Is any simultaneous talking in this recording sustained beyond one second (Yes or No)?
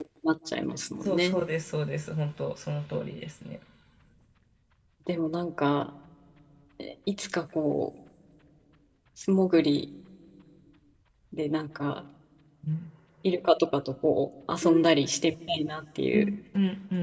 No